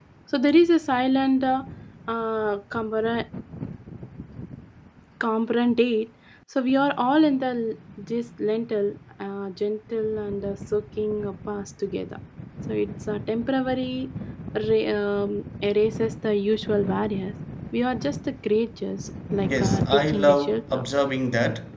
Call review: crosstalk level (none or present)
present